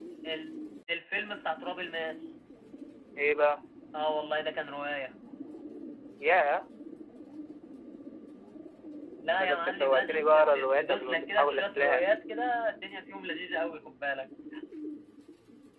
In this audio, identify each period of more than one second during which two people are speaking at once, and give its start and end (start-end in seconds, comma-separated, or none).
9.4-12.1